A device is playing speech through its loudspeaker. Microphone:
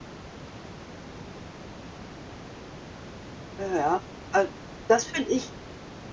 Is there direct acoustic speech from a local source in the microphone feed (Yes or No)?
Yes